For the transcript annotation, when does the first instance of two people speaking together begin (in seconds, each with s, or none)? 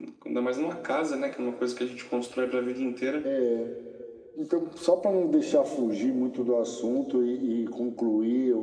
none